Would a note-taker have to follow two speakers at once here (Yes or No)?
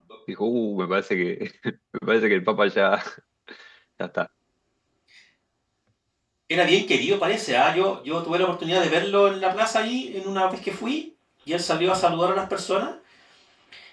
No